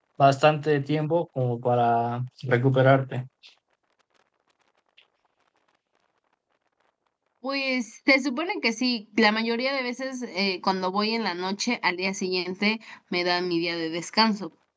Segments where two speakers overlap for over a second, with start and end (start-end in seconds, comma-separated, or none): none